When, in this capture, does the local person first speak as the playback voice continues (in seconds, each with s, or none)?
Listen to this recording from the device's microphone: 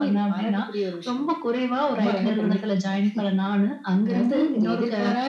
none